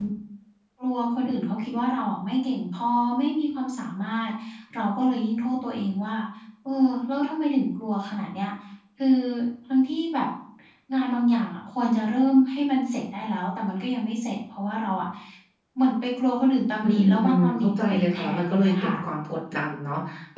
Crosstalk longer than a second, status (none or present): present